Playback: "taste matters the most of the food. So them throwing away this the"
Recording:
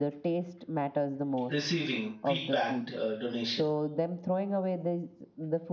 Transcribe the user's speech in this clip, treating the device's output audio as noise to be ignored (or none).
receiving pre-packed uh, donation.